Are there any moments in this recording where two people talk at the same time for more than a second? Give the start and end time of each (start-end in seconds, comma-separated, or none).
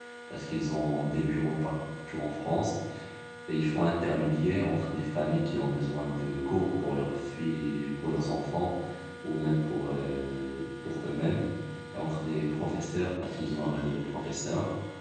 none